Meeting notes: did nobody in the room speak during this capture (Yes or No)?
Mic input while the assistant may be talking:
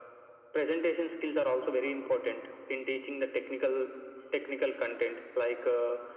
Yes